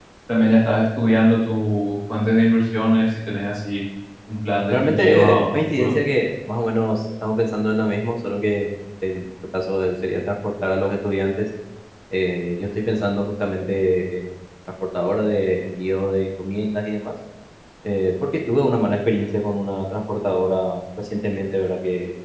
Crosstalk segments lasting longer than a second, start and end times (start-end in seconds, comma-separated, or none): 4.7-5.9